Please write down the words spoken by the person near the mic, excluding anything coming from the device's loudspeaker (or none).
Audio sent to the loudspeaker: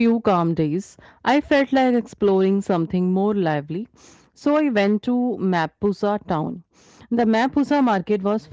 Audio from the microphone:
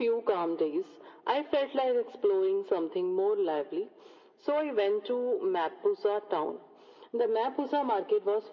none